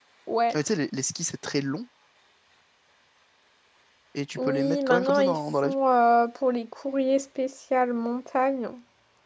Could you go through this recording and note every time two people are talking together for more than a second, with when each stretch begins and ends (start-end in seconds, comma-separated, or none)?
4.4-5.7